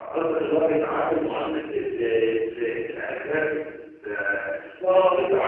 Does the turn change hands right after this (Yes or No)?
No